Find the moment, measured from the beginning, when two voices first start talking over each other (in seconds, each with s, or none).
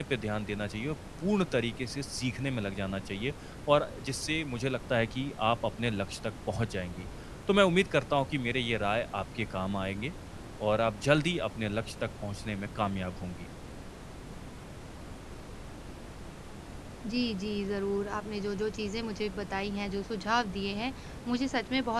none